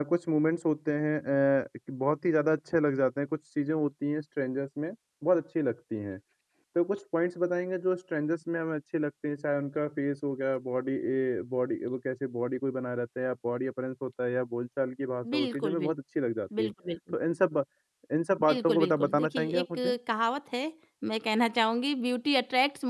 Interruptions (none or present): present